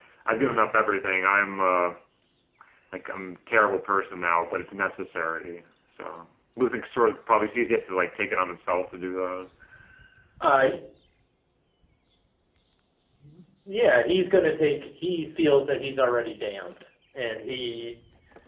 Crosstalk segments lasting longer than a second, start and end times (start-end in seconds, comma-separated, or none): none